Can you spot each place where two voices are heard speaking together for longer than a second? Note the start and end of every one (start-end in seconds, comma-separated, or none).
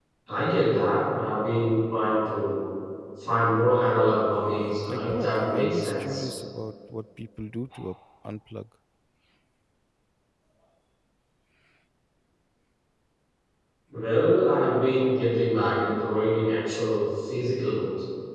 4.9-6.3